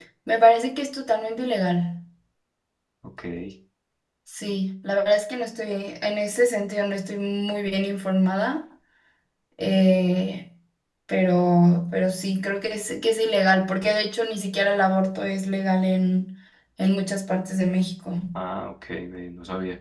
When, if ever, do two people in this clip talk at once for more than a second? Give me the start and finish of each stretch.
none

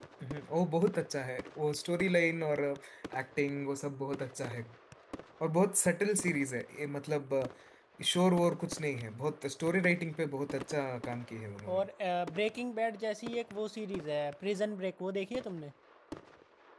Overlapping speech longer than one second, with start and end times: none

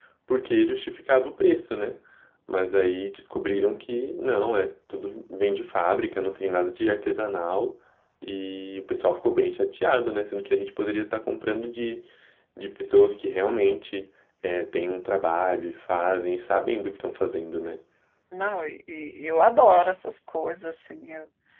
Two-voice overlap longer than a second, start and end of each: none

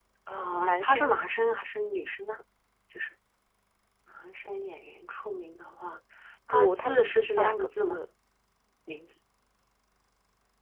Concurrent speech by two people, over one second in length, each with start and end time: 6.5-8.0

